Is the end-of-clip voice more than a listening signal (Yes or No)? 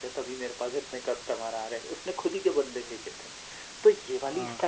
No